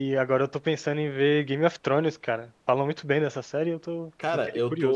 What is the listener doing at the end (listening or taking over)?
taking over